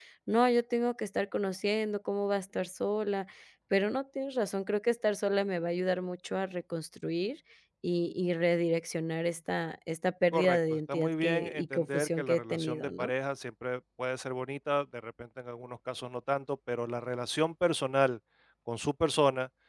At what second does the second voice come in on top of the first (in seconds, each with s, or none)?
10.3 s